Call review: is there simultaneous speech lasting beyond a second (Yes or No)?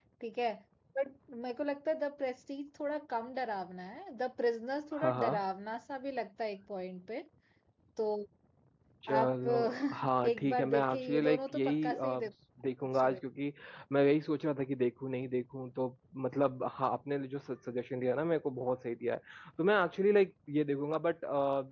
Yes